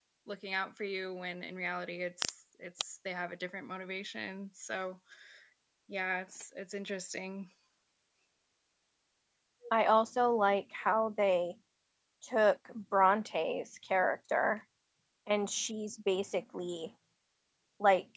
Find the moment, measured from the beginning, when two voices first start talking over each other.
none

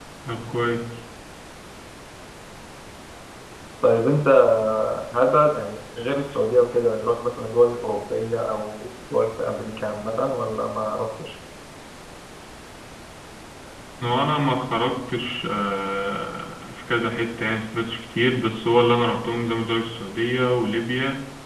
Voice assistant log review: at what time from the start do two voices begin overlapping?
none

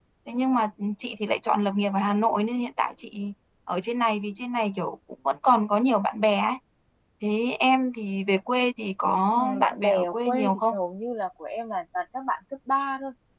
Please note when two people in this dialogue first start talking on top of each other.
9.4 s

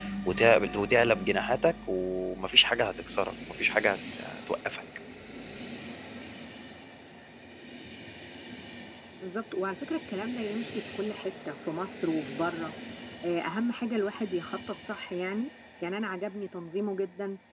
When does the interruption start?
none

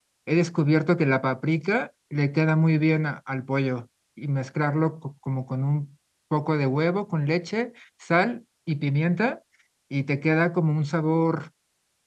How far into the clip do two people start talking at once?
none

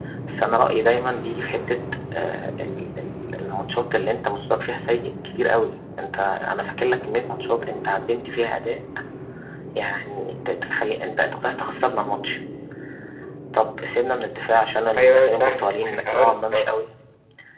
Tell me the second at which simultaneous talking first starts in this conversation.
14.9 s

